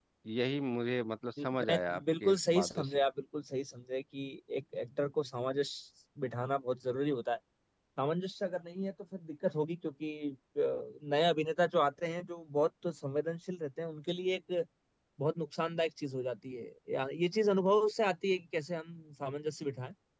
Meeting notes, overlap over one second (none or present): present